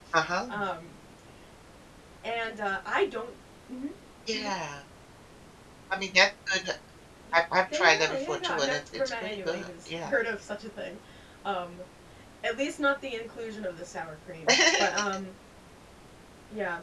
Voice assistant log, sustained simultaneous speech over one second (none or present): present